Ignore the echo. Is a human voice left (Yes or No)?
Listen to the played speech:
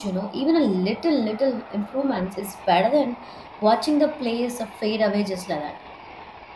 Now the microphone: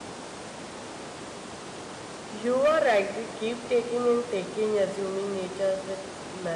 Yes